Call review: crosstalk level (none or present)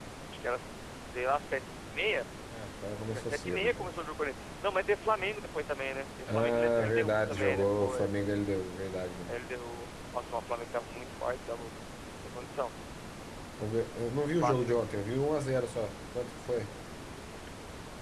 present